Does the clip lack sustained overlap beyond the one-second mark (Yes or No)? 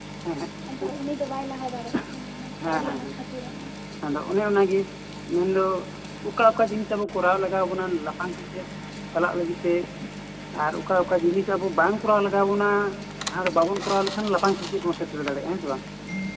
Yes